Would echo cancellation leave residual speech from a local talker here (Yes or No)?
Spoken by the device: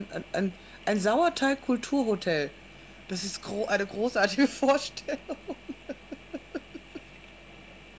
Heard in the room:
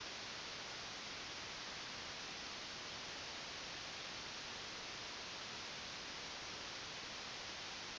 No